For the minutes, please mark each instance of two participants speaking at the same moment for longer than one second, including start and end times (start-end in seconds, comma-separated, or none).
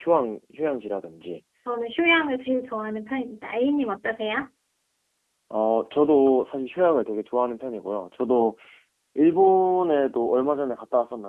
none